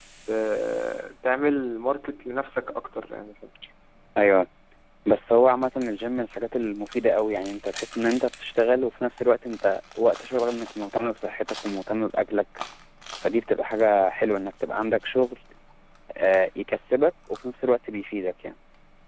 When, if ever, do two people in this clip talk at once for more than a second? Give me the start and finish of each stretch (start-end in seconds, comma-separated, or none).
none